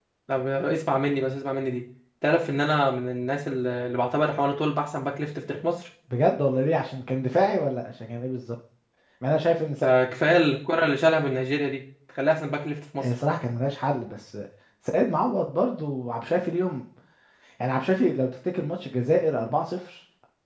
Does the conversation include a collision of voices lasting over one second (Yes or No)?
No